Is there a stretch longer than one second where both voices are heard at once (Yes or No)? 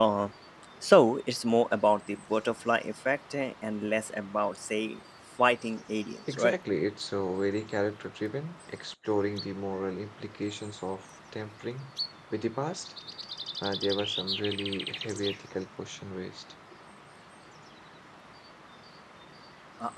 No